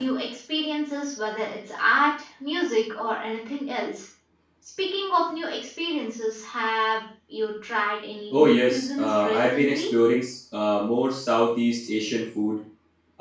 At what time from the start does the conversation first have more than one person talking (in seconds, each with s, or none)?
8.3 s